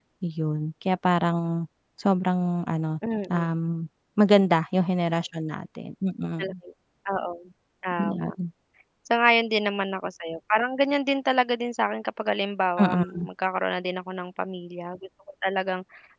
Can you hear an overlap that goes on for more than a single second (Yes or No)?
No